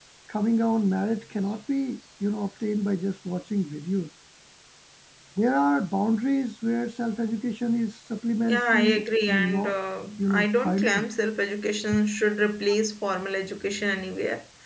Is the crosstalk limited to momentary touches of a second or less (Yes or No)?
No